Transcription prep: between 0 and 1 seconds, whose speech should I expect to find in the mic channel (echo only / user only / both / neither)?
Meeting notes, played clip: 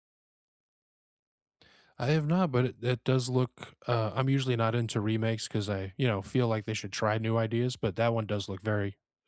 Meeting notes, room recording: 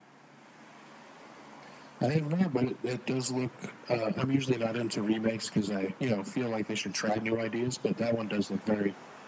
neither